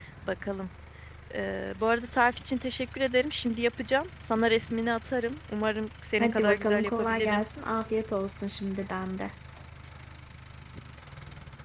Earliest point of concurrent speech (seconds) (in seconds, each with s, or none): 6.2 s